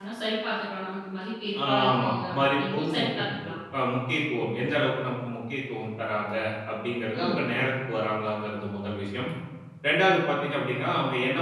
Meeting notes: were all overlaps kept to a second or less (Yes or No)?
No